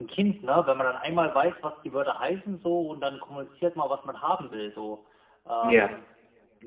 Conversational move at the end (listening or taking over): listening